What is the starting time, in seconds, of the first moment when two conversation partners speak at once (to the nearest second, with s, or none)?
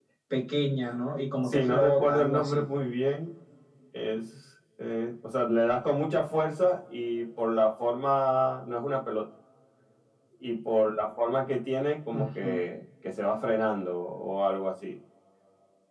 1 s